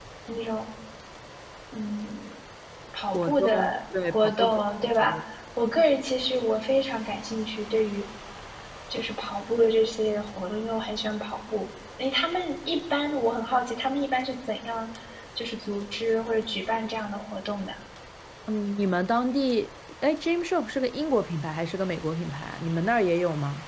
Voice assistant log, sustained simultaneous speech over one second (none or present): present